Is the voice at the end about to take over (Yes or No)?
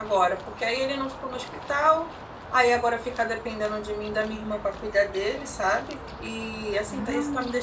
No